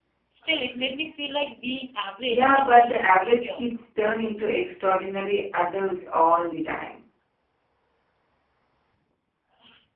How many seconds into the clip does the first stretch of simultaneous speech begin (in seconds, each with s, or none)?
2.3 s